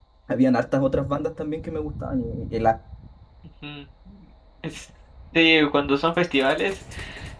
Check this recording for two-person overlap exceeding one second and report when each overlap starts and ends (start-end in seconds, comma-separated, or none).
none